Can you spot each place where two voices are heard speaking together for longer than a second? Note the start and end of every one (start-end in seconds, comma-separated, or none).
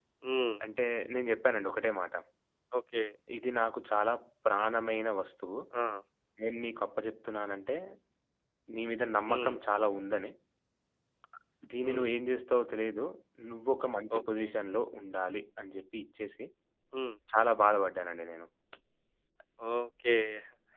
none